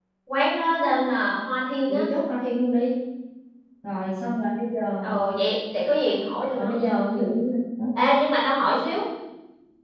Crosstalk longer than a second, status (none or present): none